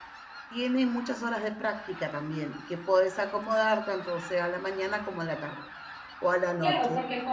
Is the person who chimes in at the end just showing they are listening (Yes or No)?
No